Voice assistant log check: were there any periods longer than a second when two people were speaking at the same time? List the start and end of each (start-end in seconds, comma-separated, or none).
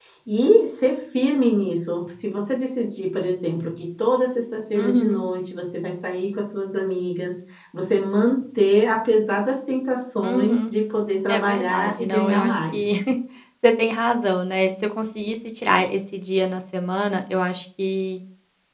11.3-12.8